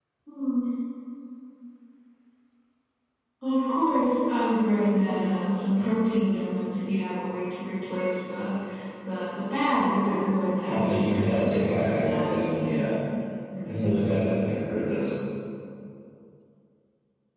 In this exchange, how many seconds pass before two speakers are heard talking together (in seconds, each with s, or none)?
10.7 s